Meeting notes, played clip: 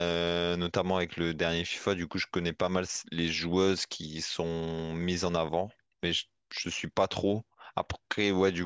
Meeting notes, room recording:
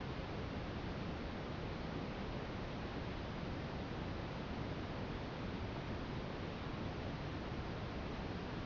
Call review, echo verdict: none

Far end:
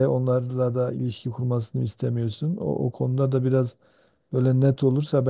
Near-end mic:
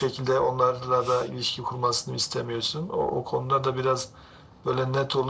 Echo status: present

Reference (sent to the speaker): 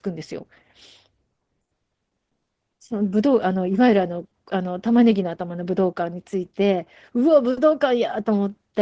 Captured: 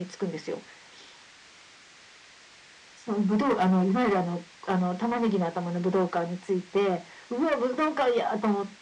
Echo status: present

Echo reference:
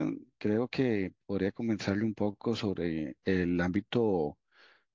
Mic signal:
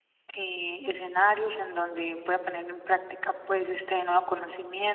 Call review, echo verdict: none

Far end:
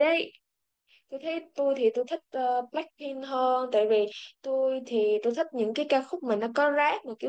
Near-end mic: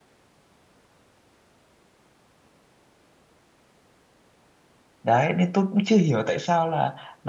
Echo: none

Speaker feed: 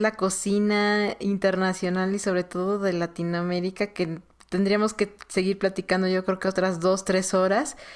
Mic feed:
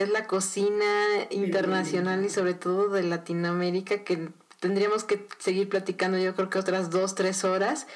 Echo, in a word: present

